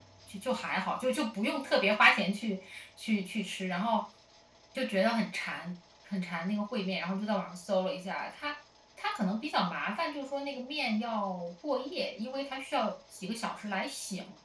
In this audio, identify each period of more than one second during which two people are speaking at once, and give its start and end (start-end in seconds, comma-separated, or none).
none